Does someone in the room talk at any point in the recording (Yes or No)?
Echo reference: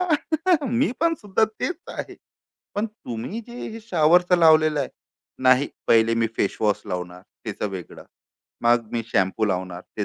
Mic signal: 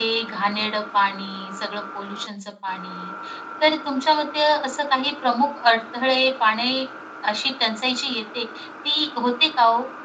Yes